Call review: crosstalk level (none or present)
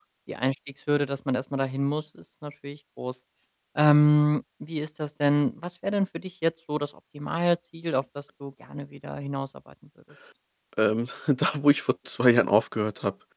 none